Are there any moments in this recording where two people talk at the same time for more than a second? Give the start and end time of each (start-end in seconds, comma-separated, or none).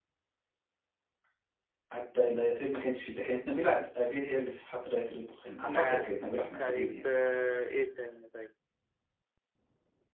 none